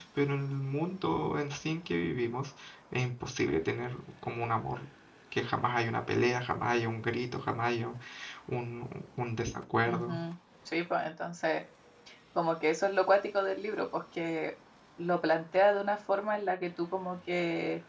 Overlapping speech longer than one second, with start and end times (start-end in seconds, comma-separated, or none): none